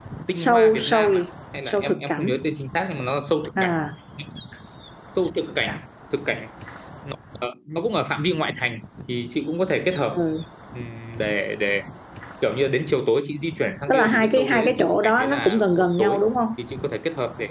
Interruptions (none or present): present